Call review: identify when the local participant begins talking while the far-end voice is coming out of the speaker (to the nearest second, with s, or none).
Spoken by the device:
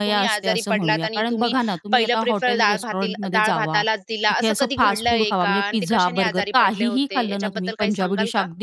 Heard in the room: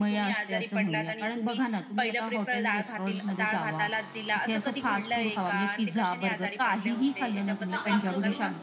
8 s